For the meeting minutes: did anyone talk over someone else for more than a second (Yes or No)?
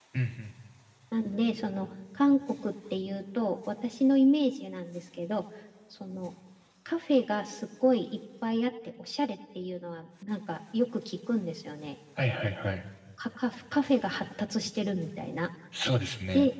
No